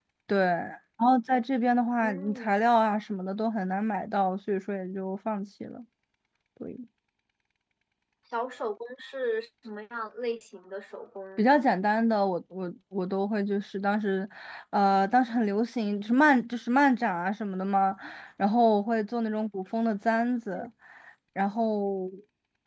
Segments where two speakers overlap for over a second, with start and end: none

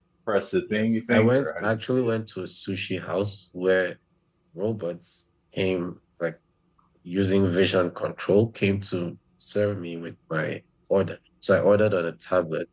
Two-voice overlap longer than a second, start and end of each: 0.7-2.1

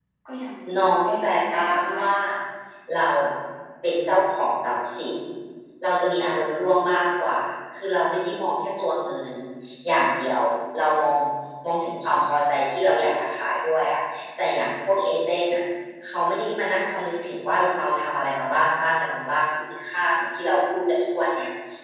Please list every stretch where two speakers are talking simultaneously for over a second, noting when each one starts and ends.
0.8-2.1

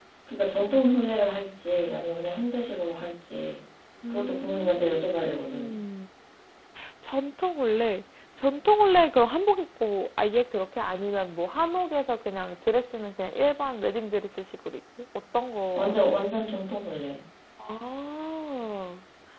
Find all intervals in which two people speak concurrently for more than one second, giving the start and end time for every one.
4.1-5.7

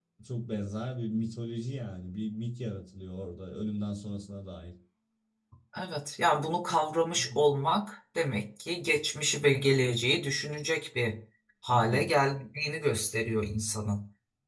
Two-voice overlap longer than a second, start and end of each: none

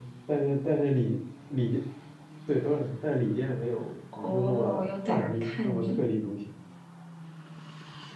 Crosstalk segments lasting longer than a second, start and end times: 4.2-5.9

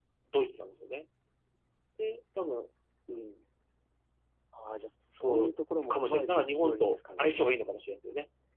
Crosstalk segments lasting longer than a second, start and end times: 5.2-7.4

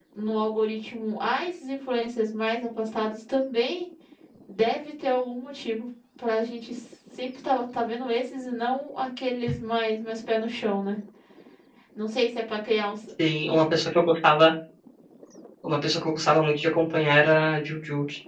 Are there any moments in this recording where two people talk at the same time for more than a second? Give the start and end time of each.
none

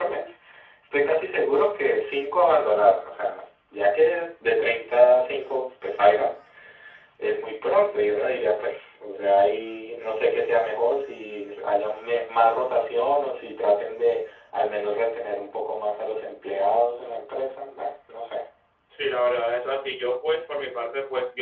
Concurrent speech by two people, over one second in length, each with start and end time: none

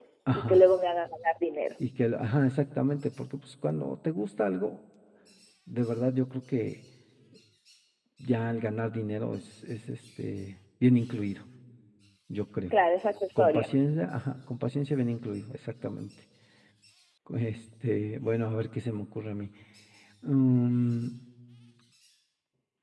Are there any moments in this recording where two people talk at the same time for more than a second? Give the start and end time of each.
none

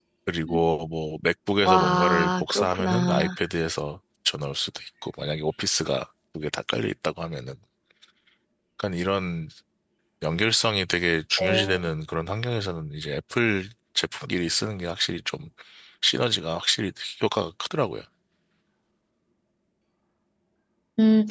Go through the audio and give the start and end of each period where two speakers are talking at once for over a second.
1.6-3.3

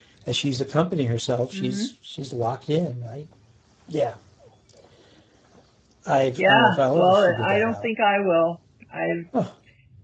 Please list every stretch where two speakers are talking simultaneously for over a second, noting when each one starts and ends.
6.4-7.9

